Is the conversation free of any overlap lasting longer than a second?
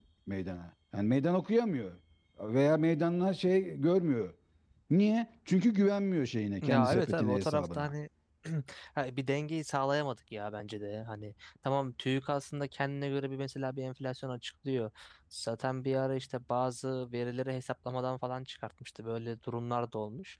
No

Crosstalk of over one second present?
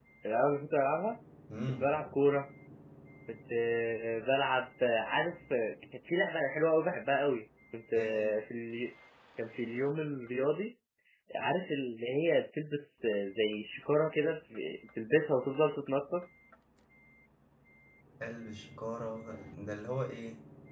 No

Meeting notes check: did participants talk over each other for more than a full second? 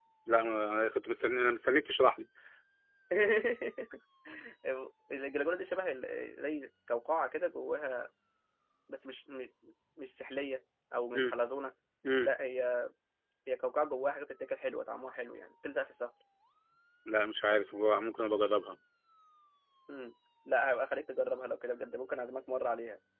No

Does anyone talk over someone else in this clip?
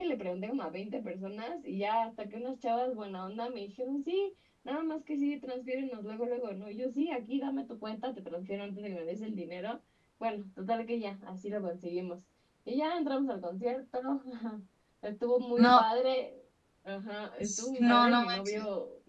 Yes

